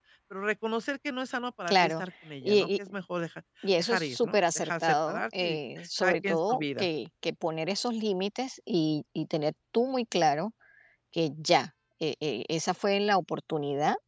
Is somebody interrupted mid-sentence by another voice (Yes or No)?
Yes